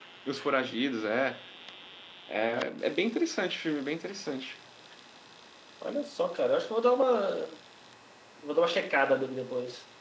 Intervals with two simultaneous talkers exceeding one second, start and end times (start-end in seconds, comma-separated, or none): none